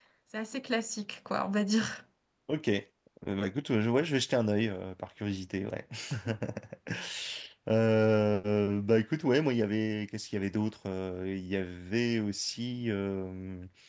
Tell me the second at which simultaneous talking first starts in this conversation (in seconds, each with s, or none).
none